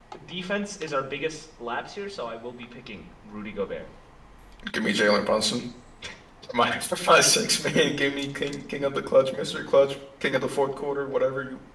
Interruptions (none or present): none